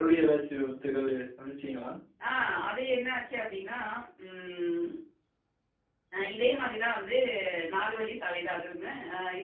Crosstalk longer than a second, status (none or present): none